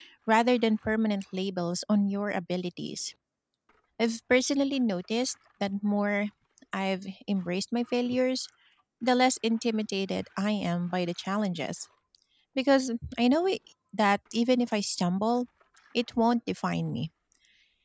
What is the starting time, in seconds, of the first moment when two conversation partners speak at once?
none

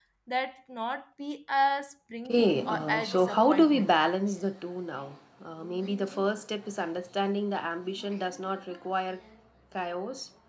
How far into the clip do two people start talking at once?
2 s

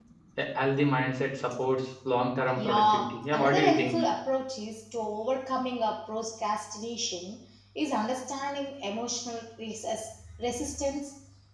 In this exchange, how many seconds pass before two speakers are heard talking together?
3 s

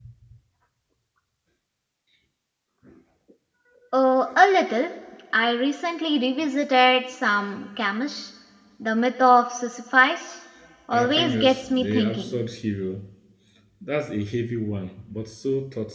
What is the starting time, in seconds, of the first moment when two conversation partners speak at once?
11 s

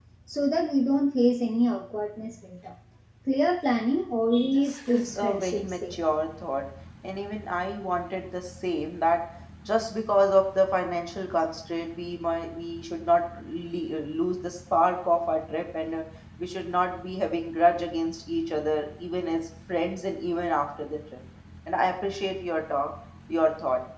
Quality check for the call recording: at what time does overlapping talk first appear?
4 s

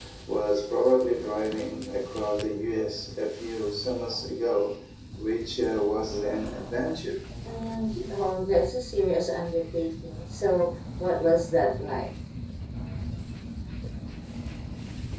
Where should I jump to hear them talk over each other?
none

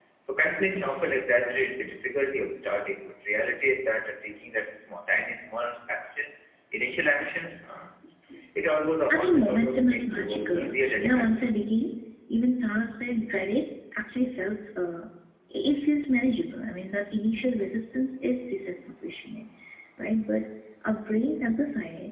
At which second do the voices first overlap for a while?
9 s

